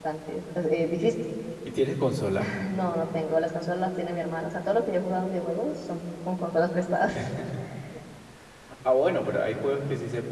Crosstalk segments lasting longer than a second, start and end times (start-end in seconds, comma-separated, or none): none